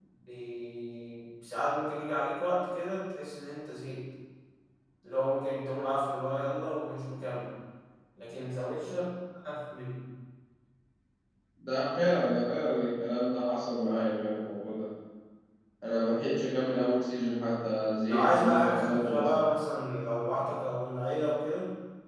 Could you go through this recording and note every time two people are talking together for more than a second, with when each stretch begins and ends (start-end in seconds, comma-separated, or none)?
18.1-19.4